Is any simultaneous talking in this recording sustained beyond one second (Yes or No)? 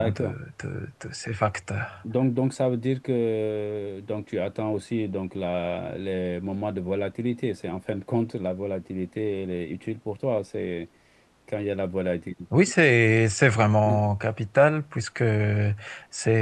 No